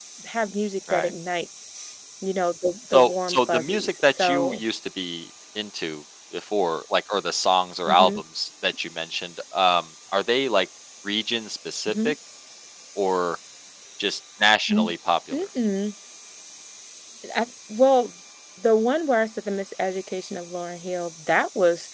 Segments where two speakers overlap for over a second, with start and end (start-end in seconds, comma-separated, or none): 2.9-4.6